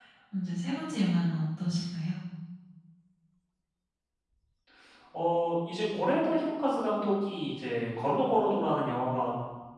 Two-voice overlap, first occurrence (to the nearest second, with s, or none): none